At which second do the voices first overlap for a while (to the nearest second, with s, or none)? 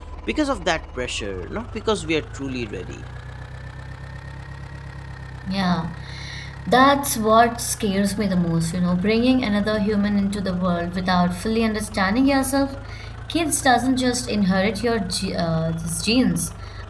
none